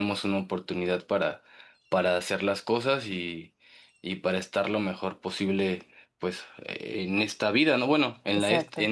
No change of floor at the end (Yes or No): Yes